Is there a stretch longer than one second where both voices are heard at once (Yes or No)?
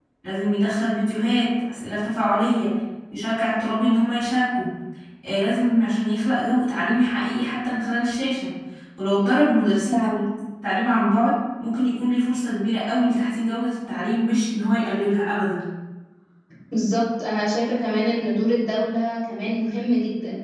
No